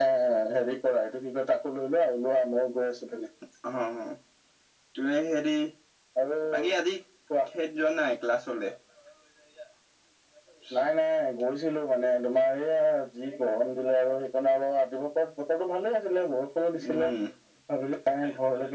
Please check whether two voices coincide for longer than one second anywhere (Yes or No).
No